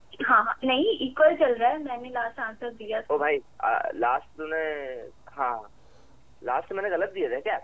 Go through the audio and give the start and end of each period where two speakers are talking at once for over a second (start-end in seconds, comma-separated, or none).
none